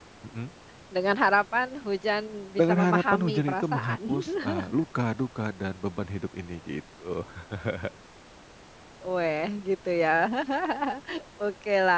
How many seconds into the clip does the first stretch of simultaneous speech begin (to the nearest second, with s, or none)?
3 s